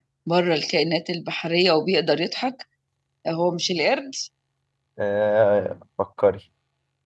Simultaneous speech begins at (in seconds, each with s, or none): none